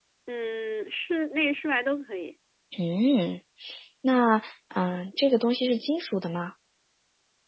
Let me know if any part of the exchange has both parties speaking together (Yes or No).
No